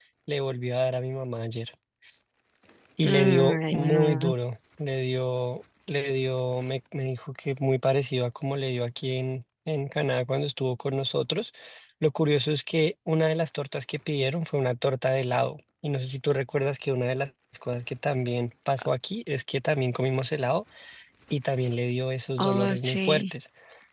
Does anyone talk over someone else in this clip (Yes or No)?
Yes